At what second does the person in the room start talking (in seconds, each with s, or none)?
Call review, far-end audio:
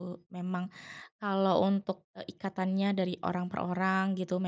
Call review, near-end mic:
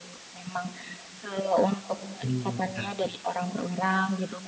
2.2 s